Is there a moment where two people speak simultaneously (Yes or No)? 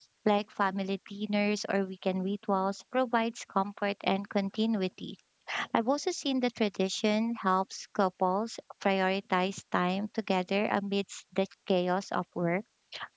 No